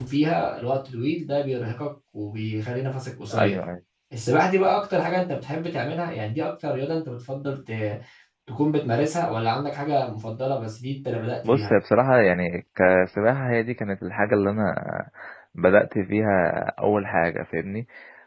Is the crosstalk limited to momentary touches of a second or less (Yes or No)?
Yes